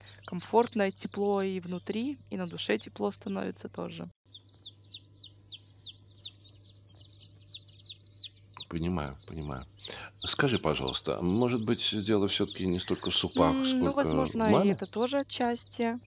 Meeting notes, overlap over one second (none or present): present